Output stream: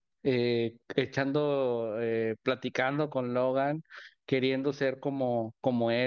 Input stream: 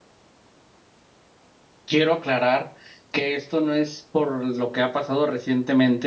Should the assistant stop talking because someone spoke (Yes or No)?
Yes